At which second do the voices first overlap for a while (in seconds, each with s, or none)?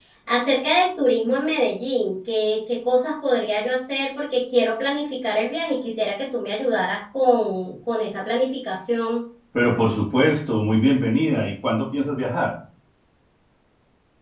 none